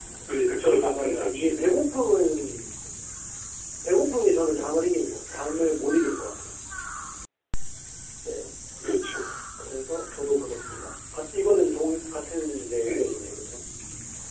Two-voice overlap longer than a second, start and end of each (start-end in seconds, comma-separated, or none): 0.6-1.8